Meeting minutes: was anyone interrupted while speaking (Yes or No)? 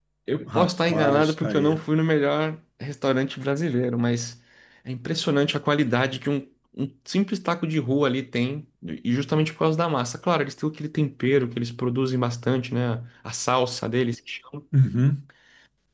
Yes